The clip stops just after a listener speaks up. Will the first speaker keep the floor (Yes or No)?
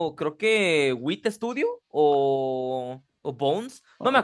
Yes